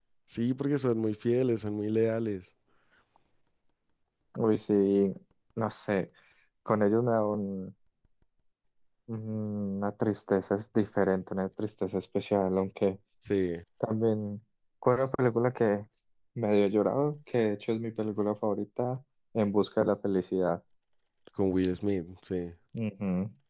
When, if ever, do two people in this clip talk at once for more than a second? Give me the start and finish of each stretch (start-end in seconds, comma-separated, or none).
none